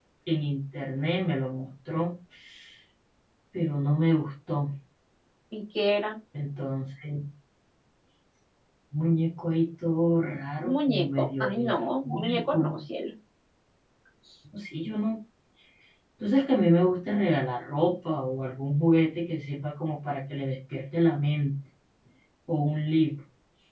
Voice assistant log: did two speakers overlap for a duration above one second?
Yes, from 10.6 s

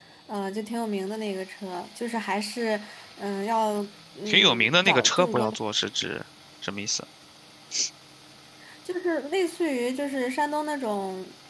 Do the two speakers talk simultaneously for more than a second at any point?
Yes, from 4.3 s

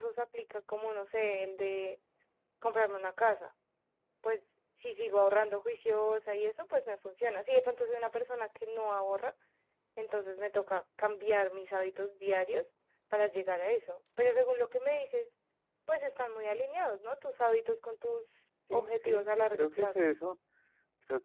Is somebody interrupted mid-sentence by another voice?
Yes, from 18.7 s

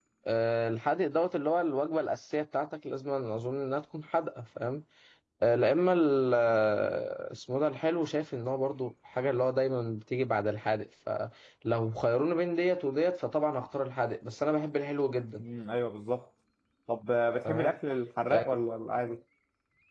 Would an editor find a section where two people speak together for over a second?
No

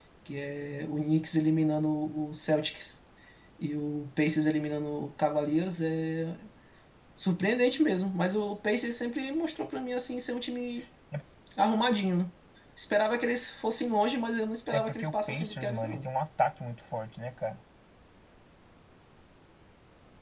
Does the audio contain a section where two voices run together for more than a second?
Yes, from 14.7 s

